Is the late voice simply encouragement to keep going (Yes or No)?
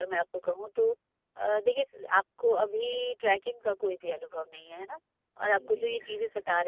Yes